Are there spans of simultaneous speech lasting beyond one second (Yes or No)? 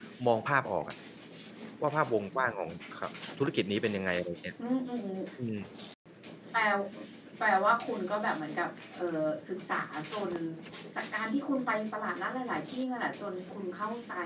No